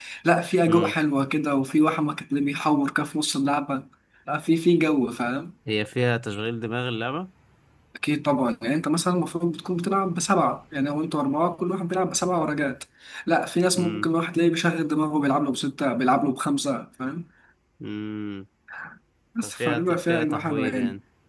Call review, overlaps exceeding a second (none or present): present